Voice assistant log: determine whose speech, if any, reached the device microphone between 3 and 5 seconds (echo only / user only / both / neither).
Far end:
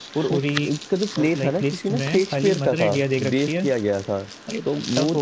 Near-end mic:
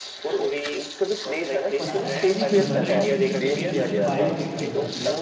both